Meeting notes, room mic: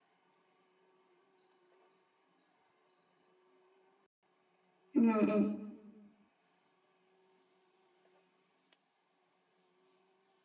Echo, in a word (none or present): none